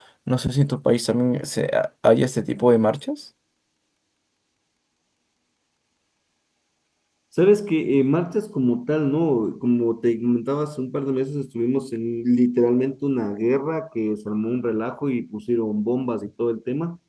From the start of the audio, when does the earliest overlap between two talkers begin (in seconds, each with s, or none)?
none